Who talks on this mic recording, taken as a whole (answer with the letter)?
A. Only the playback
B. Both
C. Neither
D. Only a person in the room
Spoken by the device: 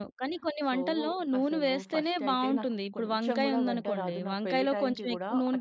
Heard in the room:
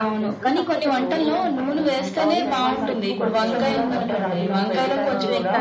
B